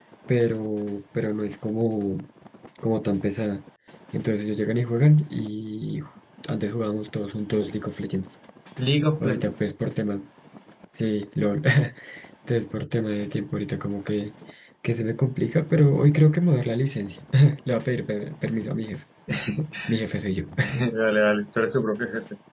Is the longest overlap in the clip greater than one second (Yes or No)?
No